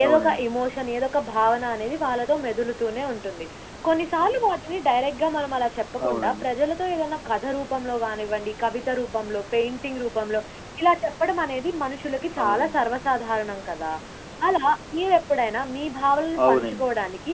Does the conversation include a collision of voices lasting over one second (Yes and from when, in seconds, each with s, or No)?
No